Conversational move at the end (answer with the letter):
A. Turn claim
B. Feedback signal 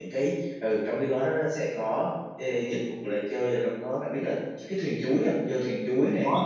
A